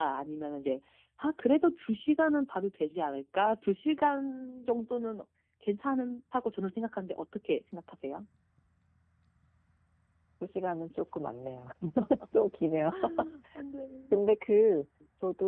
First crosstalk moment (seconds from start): none

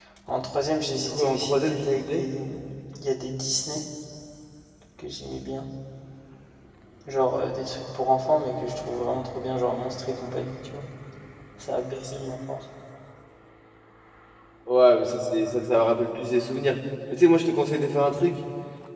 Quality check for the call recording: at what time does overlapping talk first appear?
0.9 s

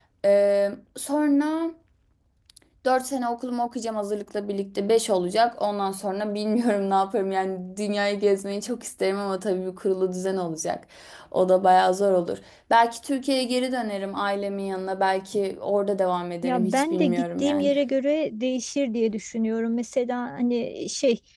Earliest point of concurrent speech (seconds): 16.4 s

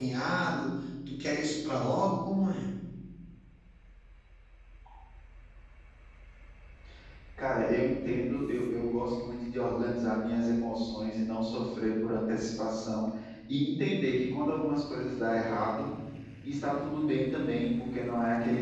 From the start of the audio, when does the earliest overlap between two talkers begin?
none

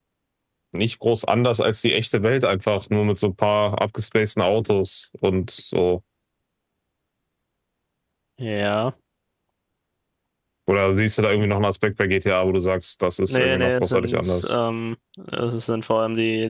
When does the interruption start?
13.3 s

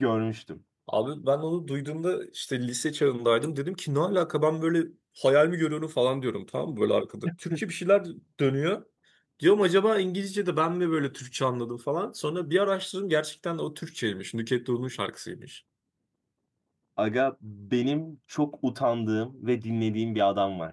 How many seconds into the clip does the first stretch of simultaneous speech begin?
none

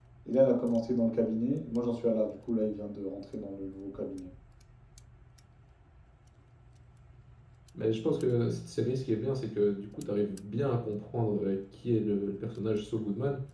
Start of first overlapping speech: none

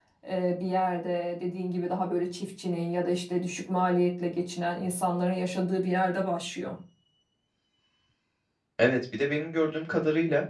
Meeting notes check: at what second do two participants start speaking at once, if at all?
none

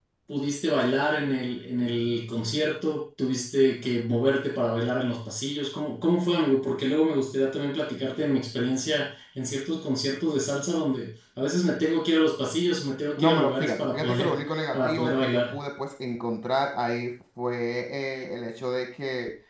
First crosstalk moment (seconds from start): 13.2 s

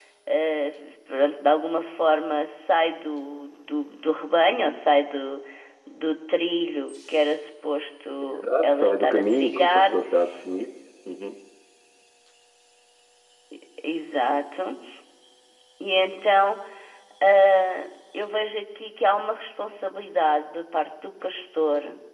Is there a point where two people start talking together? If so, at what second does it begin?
8.2 s

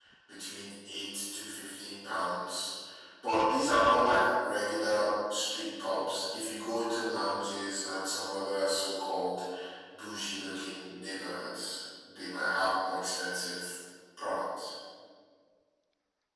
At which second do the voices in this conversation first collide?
none

